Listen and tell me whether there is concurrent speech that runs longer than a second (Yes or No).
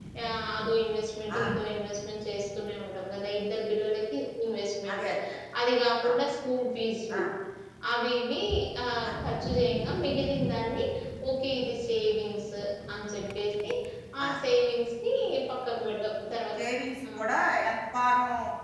No